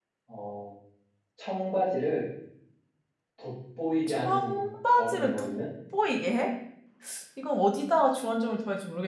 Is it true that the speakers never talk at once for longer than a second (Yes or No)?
No